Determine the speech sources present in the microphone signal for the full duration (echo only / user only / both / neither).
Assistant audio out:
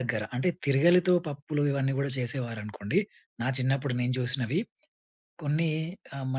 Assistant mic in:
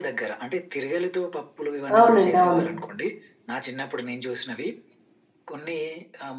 both